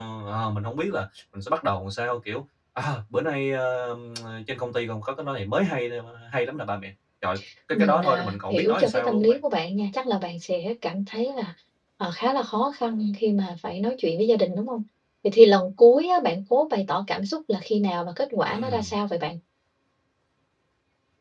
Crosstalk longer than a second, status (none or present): present